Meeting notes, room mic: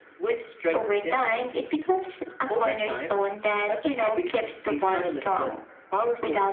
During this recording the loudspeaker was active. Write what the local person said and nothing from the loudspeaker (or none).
none